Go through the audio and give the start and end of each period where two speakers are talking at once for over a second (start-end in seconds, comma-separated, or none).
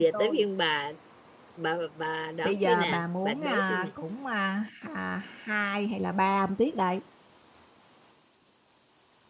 2.4-3.9